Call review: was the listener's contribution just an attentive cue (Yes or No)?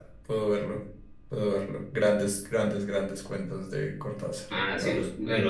No